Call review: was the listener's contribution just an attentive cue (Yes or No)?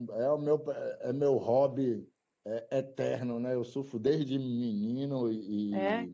Yes